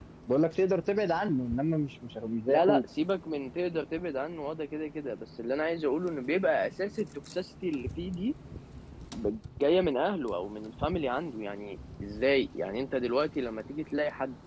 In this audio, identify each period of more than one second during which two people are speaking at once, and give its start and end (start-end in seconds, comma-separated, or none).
none